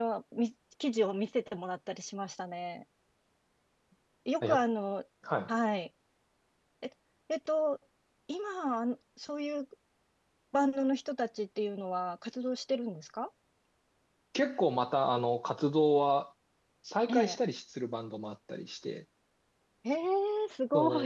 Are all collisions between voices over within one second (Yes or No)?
Yes